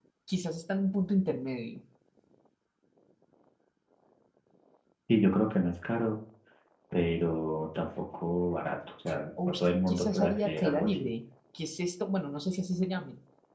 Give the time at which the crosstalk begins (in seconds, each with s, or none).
9.4 s